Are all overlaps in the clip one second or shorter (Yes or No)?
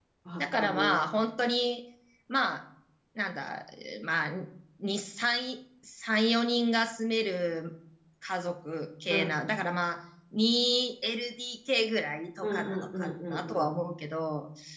No